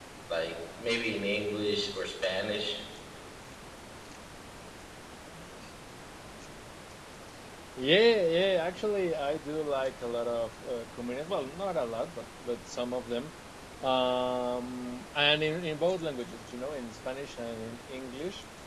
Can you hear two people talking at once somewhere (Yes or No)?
No